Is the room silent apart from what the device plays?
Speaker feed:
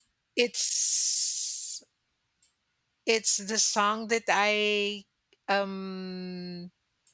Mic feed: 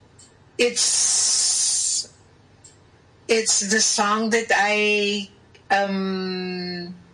Yes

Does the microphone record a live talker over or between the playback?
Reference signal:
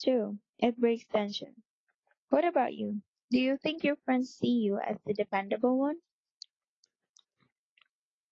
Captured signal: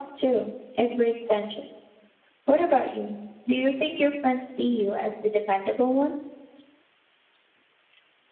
No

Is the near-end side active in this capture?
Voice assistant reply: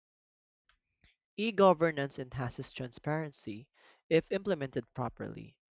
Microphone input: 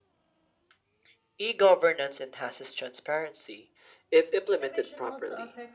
Yes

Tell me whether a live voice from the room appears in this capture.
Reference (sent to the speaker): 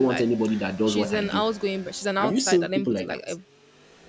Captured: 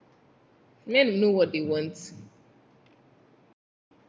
Yes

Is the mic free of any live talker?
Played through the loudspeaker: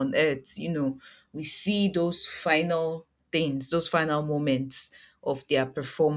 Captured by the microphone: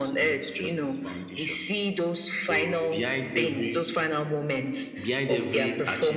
No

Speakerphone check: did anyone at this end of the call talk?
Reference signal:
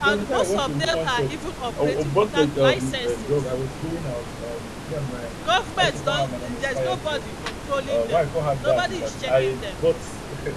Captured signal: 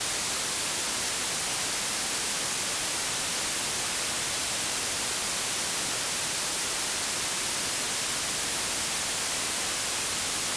No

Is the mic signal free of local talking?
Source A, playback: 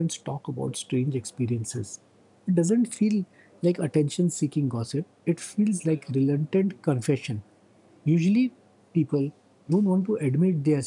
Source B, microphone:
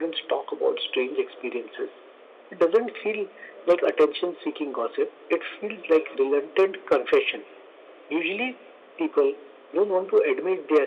Yes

